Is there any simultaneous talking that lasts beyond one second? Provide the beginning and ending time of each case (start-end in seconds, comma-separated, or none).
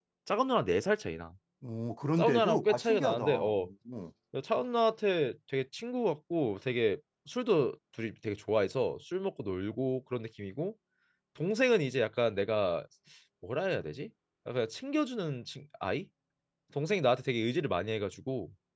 2.2-3.5